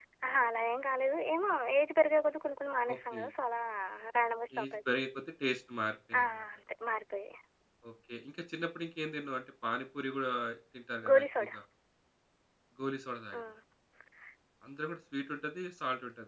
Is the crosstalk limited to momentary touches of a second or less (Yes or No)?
Yes